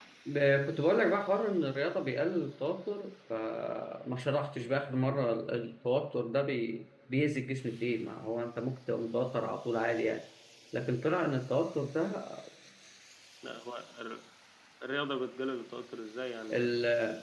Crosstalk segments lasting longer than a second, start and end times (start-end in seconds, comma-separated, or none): none